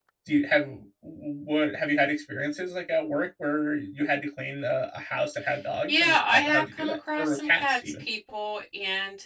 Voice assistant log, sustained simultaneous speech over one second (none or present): present